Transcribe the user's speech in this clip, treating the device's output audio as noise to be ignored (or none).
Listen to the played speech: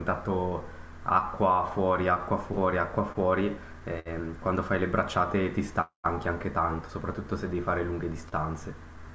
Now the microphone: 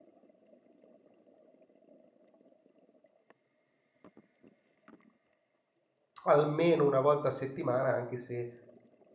almeno una volta a settimana, anche se